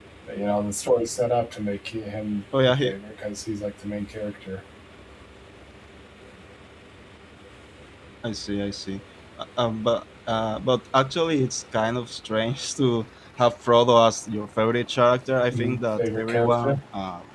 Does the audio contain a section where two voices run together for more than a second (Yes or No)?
Yes